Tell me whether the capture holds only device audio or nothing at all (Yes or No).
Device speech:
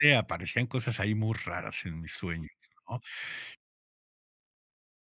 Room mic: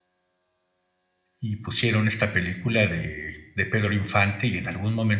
No